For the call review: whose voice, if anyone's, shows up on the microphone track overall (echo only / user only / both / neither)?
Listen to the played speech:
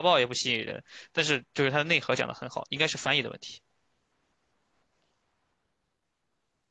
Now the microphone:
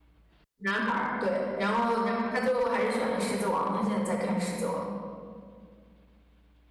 user only